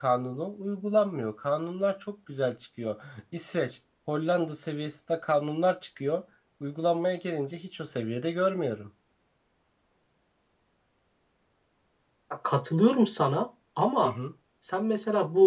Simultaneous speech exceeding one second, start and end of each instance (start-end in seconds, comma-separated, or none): none